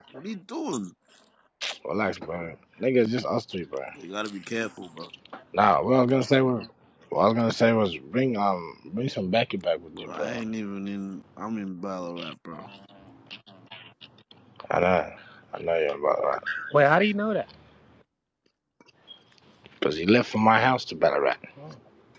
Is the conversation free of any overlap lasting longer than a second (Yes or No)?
Yes